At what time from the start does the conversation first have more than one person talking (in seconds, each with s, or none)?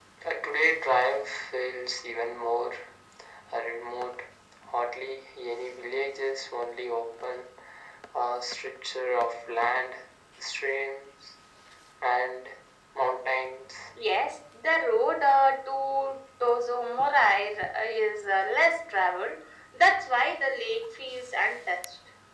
none